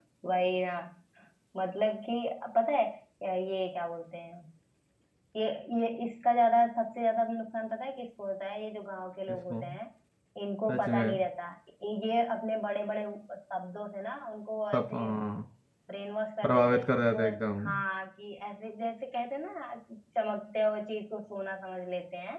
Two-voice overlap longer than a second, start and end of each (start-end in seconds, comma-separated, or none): 16.4-17.7